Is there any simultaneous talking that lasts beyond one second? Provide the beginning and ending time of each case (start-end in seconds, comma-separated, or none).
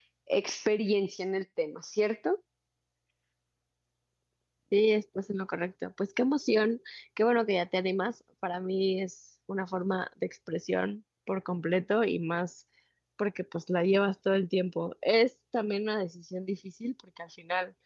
none